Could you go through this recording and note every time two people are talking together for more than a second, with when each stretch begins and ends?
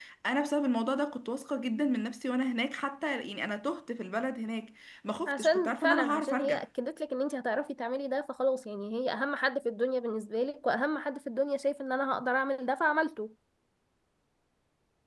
5.3-6.6

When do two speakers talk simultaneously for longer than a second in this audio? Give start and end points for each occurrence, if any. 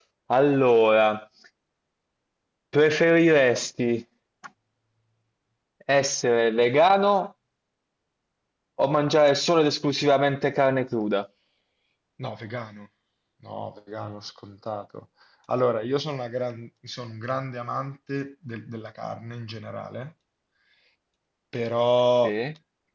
none

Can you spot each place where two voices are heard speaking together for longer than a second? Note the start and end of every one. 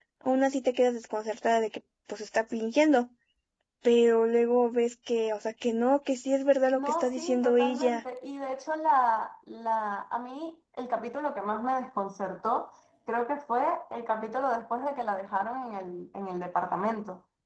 6.7-8.0

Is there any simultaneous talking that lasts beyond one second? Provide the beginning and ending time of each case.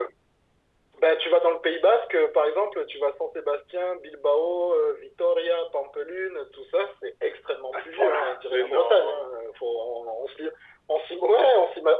7.7-9.2

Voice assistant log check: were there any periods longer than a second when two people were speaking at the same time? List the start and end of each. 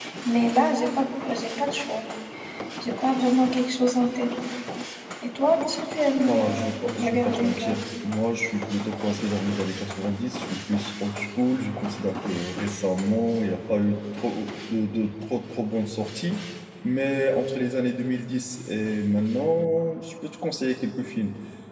6.3-7.7

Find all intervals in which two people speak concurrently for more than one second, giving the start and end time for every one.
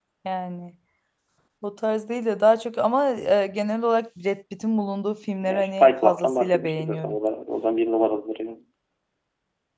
5.4-7.2

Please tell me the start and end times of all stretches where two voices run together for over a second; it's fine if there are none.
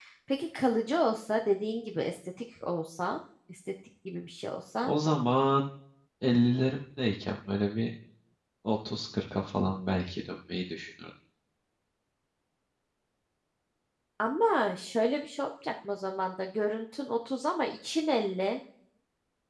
none

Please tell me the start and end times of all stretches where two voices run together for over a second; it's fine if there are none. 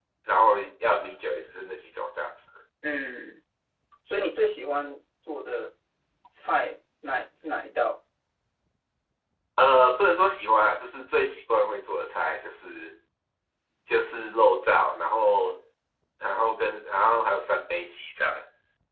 none

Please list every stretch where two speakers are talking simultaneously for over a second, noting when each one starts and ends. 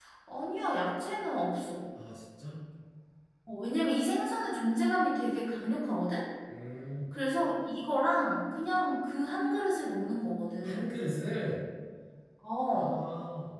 none

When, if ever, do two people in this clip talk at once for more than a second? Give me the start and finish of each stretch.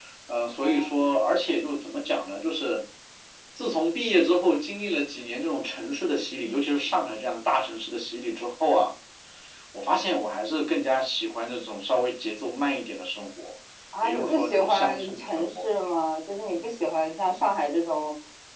14.0-15.5

